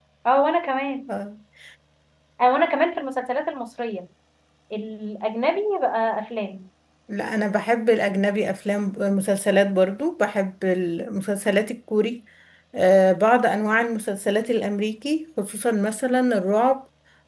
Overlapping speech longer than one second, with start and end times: none

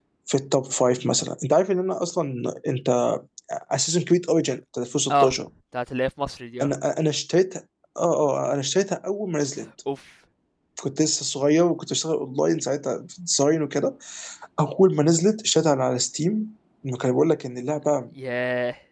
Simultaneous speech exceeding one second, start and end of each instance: none

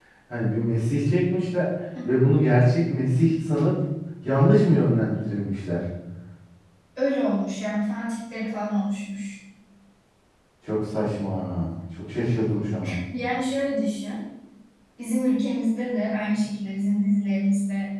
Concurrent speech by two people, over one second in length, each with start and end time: none

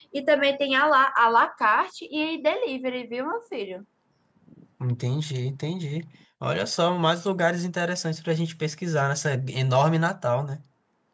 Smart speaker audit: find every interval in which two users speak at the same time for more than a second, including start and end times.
none

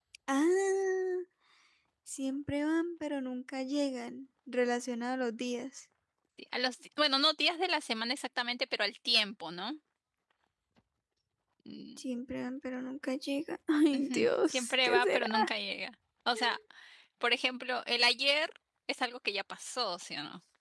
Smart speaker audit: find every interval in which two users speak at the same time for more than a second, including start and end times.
13.9-15.3

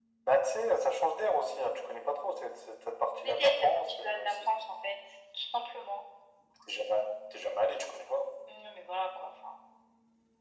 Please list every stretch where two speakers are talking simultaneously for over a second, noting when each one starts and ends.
3.2-4.5

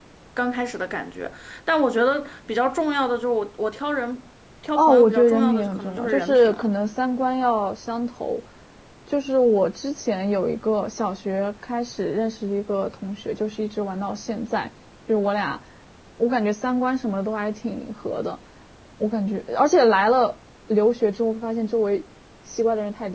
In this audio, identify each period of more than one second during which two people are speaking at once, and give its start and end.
4.8-6.7

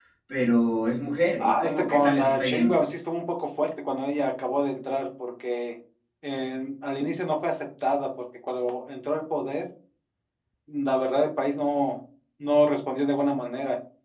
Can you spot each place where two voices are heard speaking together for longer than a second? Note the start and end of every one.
1.4-2.8

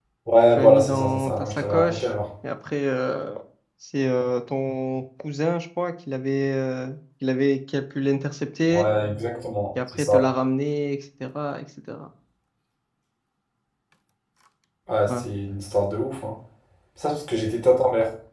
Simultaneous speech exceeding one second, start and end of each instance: 0.6-2.1

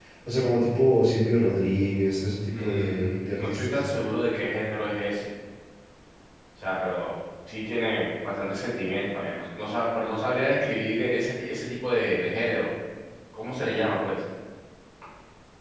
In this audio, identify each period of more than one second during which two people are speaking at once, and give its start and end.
2.6-3.8

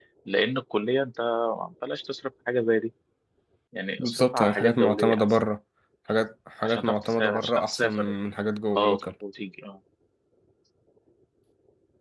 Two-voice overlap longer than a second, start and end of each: 4.0-5.2, 6.6-8.1

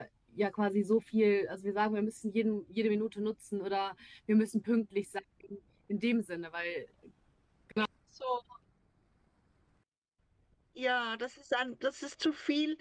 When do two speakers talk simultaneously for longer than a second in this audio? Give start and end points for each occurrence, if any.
none

